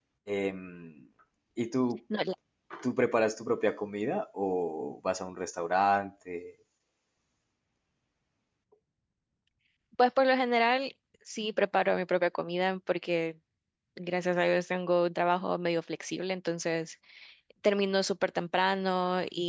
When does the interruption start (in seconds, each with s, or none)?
none